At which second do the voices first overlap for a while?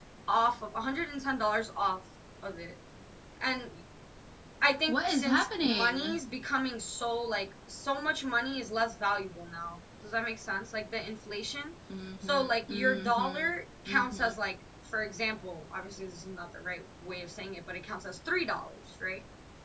4.9 s

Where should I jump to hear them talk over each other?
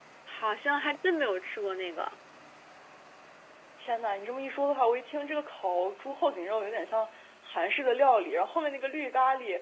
none

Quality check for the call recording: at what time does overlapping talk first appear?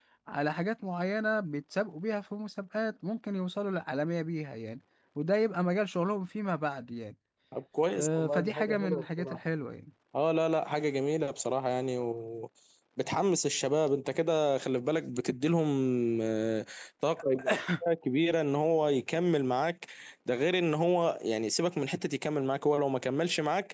7.9 s

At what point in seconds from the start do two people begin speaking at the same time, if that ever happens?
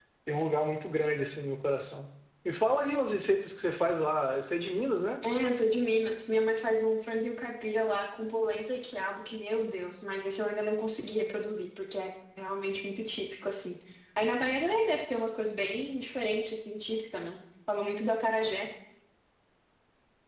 none

